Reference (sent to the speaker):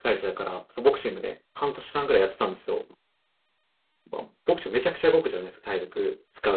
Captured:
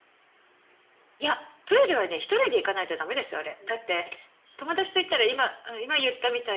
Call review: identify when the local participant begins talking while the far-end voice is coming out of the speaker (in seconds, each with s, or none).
1.2 s